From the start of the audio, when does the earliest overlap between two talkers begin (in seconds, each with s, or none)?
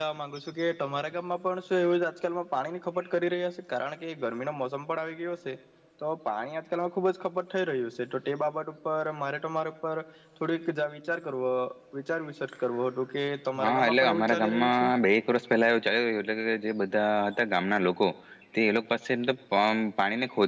13.6 s